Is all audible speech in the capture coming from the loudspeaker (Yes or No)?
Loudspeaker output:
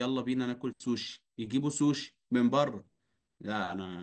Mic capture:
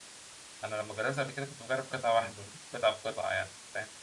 No